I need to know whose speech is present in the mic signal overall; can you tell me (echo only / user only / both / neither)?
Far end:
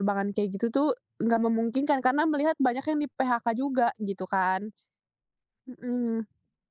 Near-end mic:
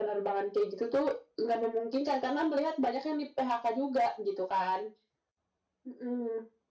echo only